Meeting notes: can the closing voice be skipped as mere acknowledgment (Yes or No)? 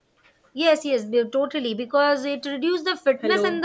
Yes